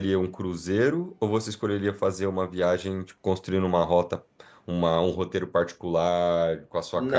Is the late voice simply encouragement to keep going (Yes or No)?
No